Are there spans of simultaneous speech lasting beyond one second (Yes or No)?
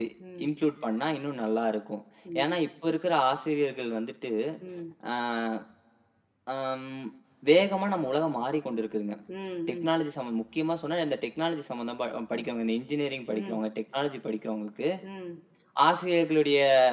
No